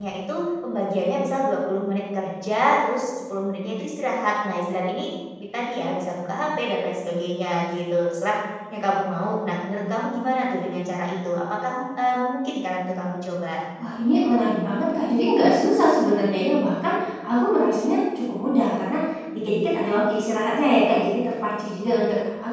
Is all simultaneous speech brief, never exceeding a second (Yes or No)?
Yes